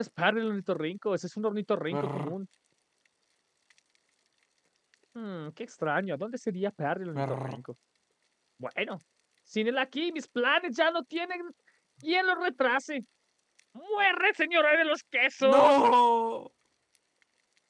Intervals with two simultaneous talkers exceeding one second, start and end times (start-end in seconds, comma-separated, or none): none